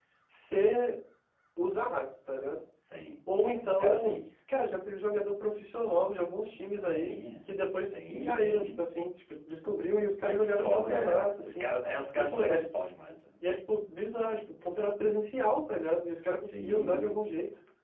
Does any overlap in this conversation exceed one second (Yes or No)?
Yes